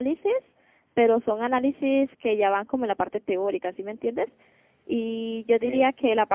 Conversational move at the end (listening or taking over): listening